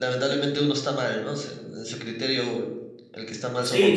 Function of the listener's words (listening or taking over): taking over